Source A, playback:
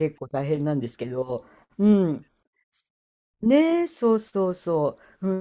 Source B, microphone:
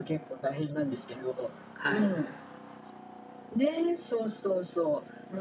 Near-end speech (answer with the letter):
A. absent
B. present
B